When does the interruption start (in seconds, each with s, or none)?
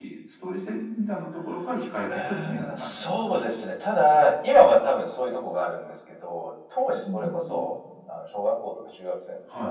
2.1 s